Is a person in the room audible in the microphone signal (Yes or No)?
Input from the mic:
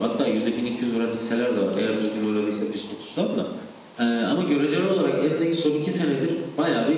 No